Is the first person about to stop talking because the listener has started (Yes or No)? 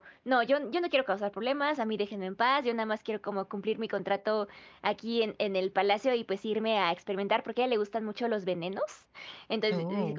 No